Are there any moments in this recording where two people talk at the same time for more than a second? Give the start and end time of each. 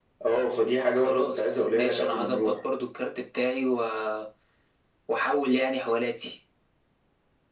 1.0-2.6

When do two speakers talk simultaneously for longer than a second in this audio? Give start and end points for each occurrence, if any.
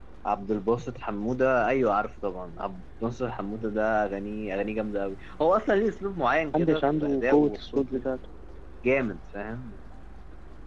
6.5-8.0

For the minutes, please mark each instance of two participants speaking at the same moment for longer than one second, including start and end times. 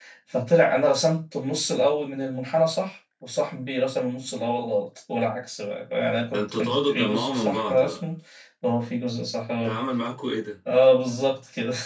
6.3-8.0

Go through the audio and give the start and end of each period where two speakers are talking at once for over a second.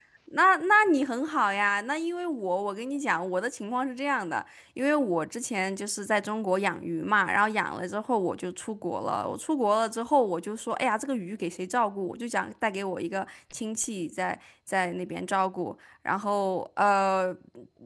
none

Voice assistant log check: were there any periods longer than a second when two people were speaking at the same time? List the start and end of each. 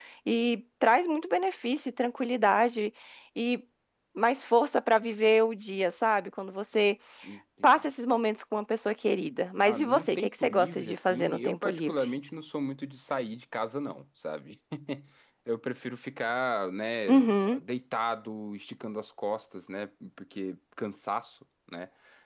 9.6-12.0

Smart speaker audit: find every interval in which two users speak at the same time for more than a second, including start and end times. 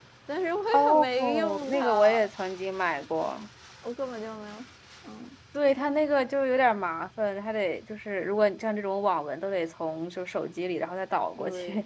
0.7-2.2

